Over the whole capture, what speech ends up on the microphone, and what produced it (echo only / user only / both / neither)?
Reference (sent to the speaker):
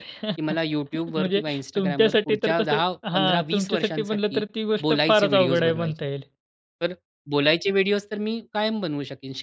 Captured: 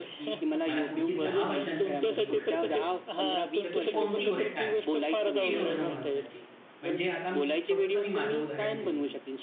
both